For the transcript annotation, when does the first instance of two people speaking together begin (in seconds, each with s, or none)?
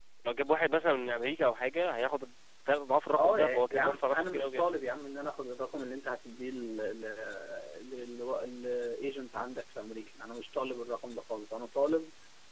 3.1 s